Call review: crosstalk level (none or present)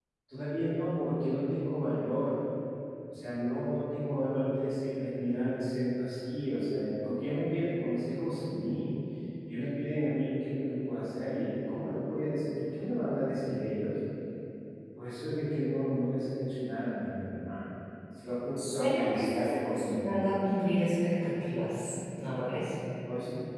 present